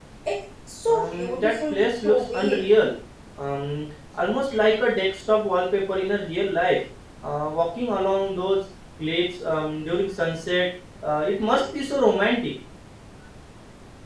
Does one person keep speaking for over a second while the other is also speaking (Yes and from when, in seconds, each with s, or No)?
Yes, from 0.9 s